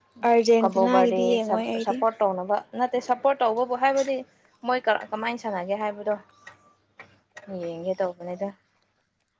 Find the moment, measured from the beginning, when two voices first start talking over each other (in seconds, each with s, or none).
0.6 s